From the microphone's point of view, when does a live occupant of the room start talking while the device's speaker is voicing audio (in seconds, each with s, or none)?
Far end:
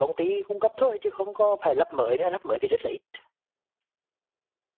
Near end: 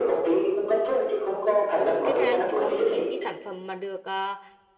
2.0 s